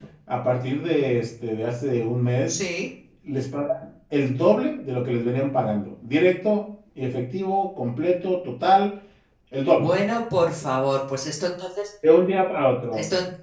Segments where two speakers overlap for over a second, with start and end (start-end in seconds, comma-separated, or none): none